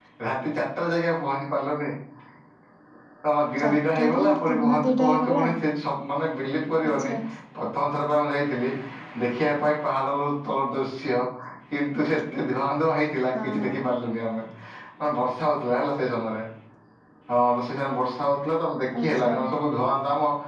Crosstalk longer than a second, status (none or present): present